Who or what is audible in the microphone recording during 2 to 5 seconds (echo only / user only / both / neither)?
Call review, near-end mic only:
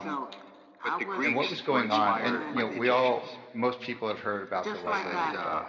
both